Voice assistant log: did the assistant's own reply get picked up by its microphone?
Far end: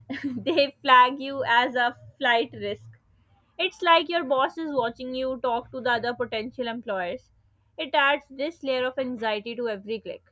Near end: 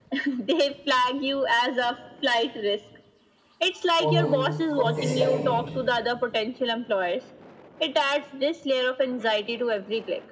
Yes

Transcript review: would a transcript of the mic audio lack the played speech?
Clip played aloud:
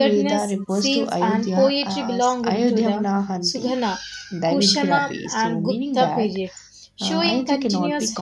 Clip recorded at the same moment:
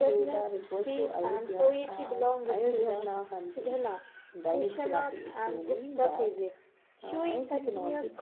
No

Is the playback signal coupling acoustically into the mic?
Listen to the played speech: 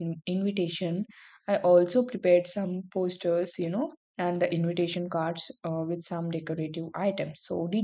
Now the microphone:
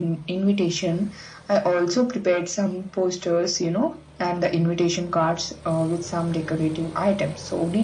Yes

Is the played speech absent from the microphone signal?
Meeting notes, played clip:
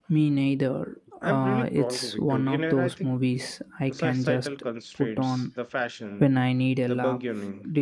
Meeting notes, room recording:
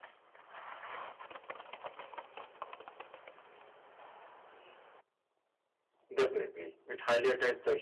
Yes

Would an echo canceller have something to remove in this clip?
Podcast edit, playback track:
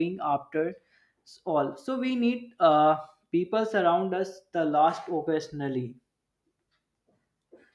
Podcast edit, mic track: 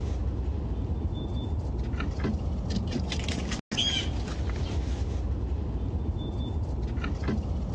No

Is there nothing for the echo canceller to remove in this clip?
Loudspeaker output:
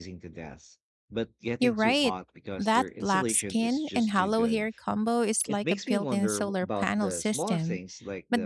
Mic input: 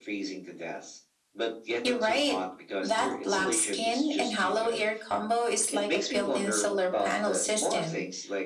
No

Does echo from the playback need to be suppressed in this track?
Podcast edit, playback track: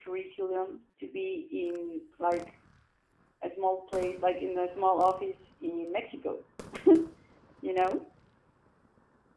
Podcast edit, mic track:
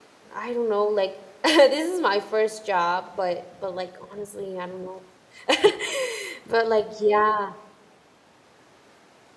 No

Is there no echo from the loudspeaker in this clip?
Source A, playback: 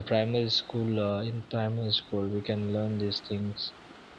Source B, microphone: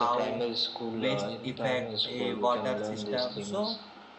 No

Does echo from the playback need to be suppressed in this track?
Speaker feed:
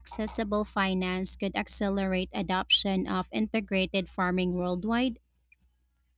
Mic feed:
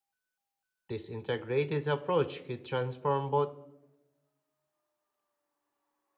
No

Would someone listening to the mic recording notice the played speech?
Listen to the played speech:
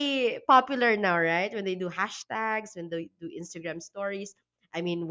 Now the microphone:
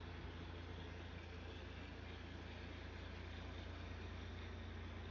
No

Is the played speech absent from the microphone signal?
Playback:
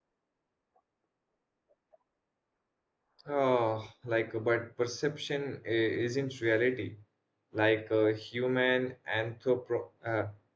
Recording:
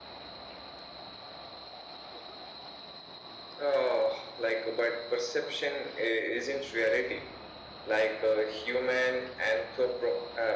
No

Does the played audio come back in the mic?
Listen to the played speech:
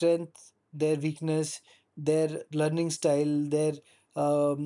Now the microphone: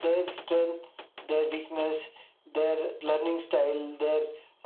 Yes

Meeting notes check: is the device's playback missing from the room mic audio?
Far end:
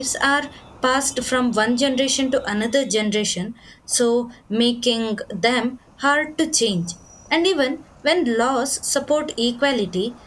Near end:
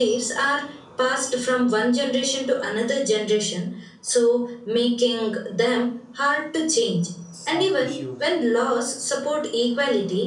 No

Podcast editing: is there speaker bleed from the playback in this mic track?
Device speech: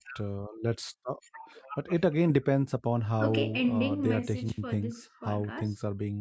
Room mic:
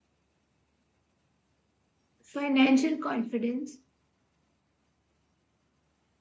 No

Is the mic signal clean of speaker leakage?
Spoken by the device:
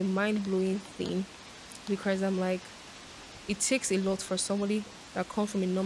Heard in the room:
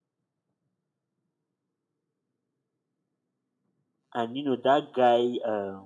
Yes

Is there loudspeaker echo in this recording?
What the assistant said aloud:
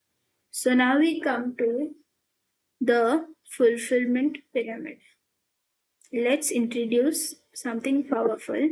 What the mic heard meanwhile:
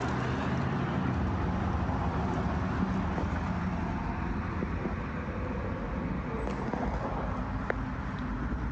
No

